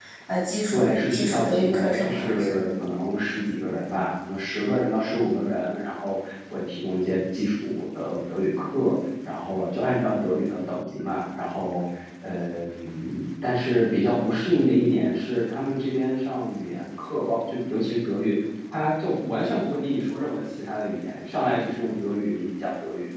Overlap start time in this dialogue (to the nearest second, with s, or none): 1 s